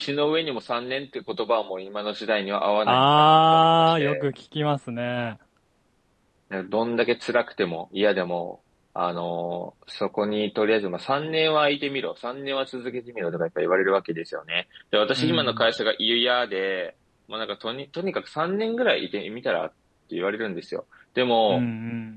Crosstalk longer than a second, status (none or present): present